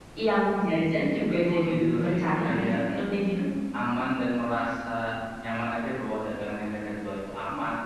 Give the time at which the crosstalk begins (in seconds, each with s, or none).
1.4 s